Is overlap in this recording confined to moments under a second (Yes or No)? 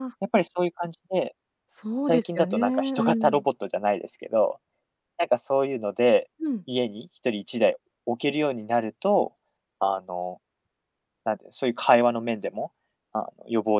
No